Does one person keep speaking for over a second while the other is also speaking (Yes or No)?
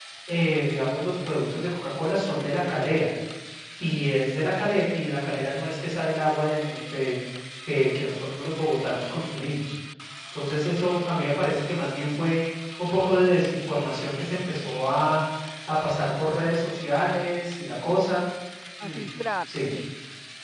No